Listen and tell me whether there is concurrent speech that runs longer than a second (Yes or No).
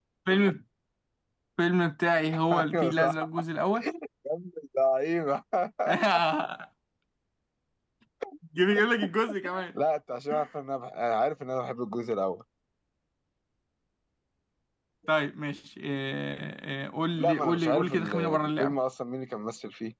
Yes